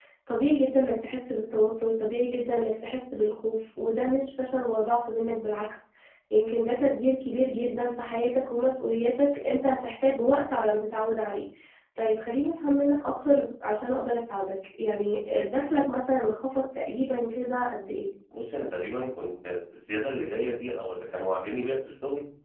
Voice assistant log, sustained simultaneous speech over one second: none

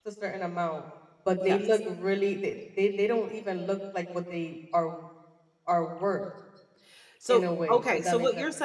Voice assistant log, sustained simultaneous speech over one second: present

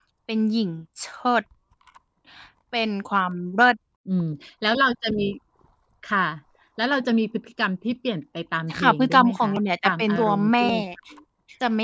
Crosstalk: present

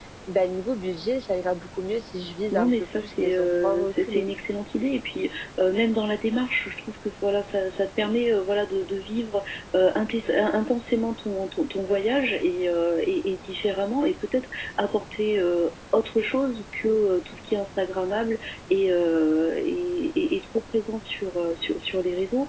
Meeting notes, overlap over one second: present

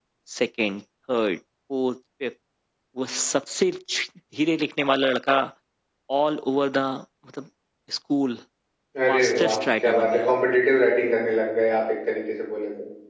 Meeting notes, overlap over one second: present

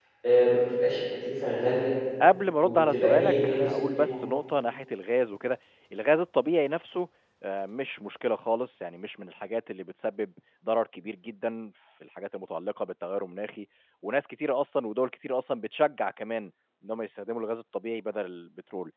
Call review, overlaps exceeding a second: present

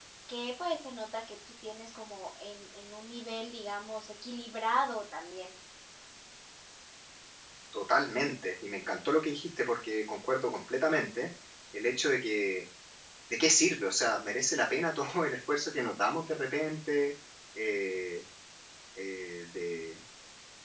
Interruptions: none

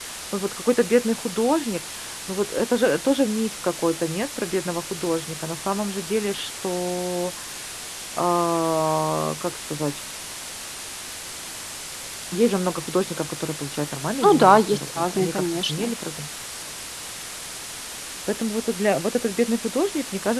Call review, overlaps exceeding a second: present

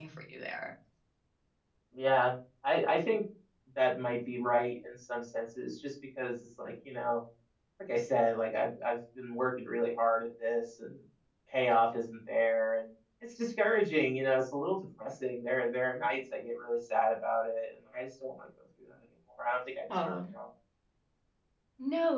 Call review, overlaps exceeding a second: none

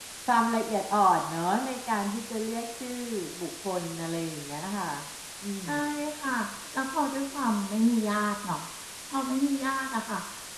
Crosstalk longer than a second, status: none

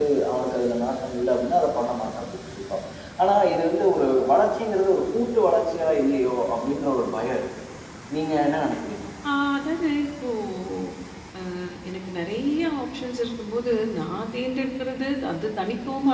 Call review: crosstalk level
none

